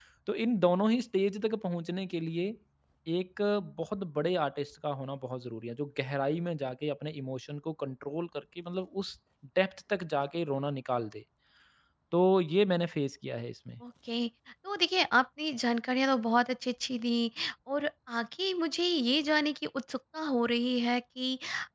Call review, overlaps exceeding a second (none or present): none